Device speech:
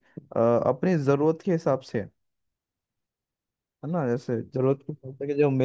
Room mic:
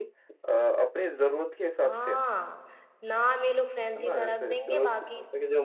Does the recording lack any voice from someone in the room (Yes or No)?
No